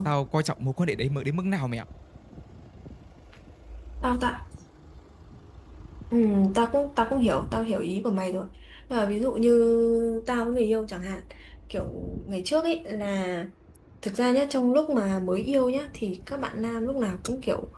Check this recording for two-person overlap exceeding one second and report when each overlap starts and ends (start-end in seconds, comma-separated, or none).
none